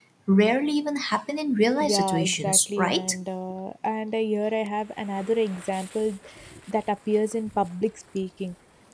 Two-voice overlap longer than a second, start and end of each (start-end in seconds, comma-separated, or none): 1.8-3.0